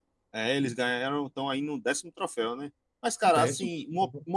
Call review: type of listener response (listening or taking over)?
listening